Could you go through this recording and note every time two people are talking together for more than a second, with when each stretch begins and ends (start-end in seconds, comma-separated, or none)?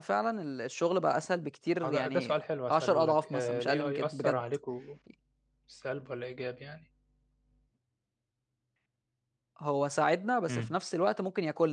1.8-4.4